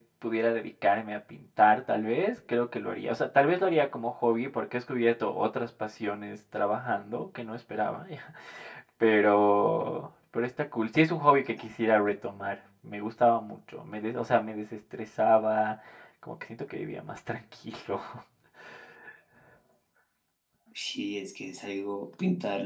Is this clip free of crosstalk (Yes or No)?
Yes